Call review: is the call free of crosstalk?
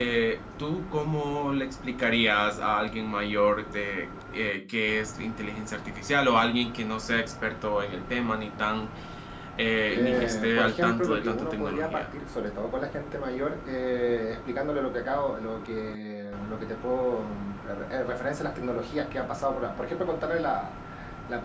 No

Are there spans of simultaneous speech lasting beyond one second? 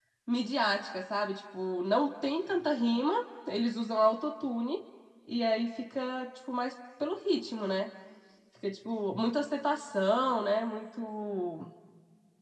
No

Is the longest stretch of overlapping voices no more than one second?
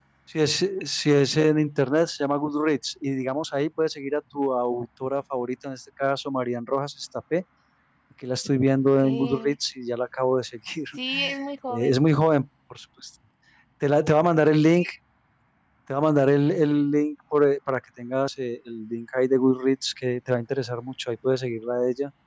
Yes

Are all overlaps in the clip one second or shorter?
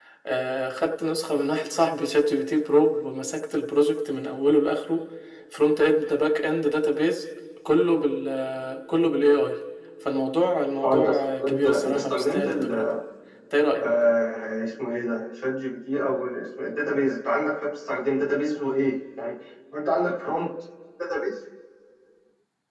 No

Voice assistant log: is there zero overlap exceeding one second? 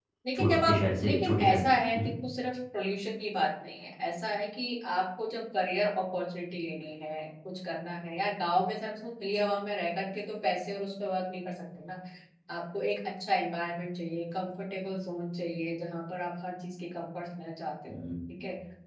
No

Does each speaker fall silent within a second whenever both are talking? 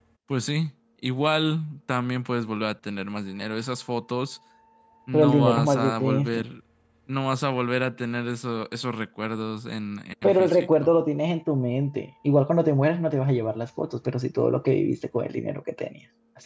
No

